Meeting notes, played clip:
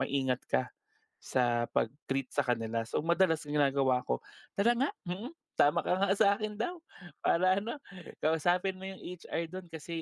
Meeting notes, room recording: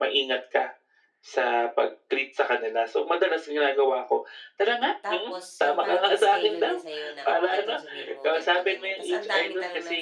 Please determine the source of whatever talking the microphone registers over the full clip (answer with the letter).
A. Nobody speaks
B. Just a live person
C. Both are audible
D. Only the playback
C